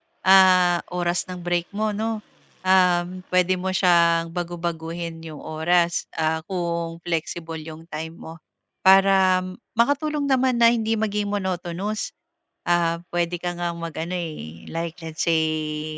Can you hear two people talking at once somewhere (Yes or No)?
No